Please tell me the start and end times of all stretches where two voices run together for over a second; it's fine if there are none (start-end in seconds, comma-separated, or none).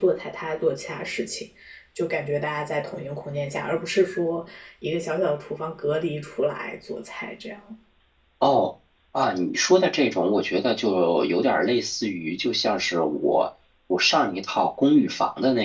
none